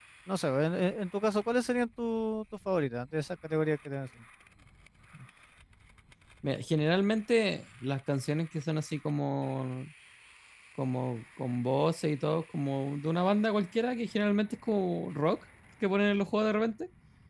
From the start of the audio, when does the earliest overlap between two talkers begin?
none

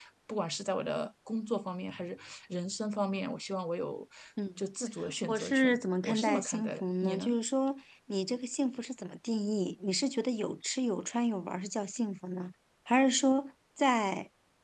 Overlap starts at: 5.3 s

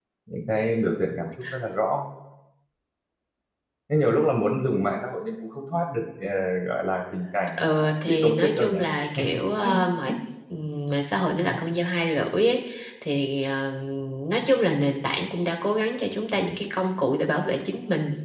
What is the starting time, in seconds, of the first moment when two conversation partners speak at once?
7.6 s

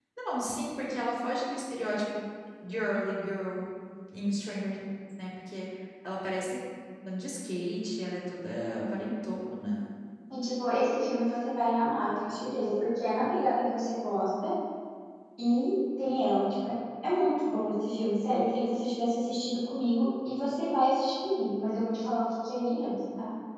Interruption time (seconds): none

